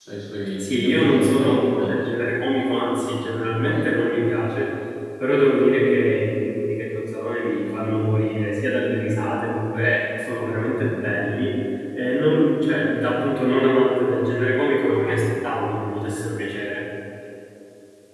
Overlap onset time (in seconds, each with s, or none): 0.5 s